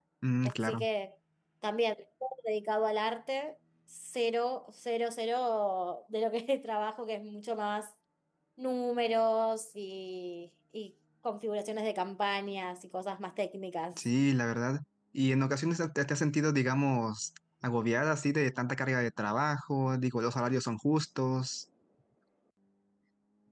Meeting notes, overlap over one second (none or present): none